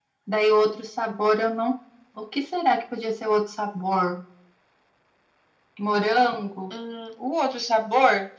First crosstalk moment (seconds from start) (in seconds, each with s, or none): none